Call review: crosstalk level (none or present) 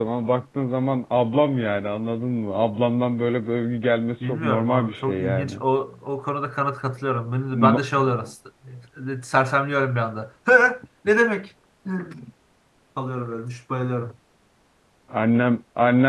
present